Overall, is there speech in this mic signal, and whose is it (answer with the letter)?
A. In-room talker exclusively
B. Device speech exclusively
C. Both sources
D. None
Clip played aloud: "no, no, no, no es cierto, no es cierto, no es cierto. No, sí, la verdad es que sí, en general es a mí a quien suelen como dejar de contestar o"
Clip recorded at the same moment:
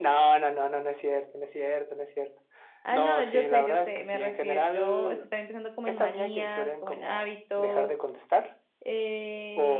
C